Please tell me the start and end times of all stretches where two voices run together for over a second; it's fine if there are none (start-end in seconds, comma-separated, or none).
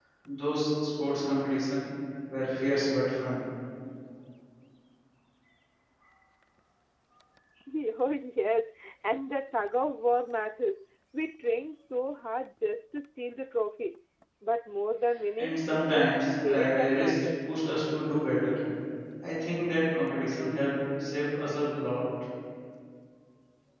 15.4-17.2